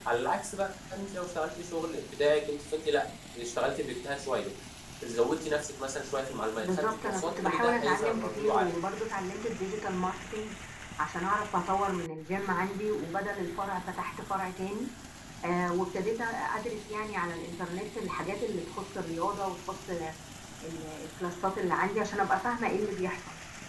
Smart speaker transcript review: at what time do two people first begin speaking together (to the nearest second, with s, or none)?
7 s